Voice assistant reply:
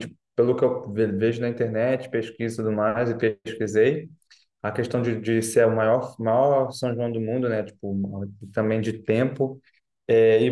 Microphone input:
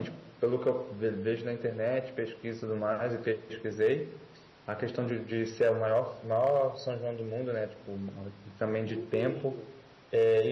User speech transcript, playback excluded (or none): Tudo